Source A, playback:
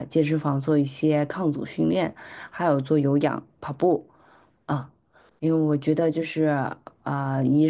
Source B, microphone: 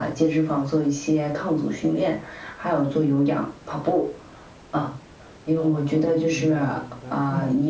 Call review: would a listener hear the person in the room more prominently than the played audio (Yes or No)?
No